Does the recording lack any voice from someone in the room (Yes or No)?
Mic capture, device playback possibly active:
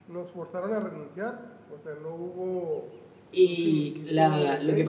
No